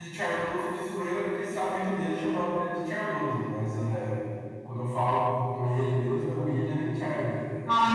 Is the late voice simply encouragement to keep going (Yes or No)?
No